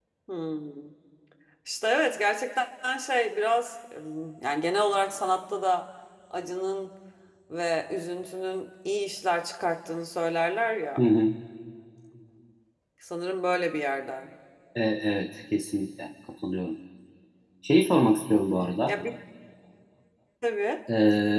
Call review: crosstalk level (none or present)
none